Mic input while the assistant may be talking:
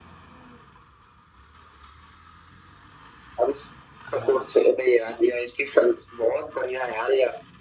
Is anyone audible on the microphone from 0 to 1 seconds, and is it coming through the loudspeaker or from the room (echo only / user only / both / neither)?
neither